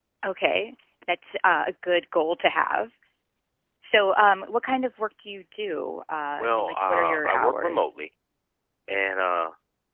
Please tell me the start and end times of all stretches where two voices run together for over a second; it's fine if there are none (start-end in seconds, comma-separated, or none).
6.4-7.9